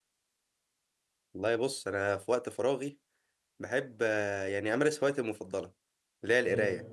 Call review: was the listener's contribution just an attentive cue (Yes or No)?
Yes